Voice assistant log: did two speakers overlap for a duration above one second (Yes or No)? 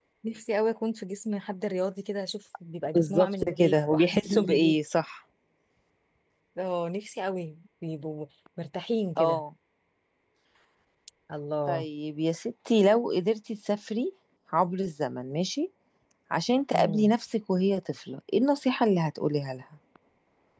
Yes